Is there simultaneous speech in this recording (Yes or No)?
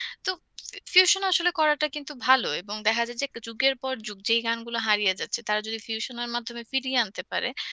No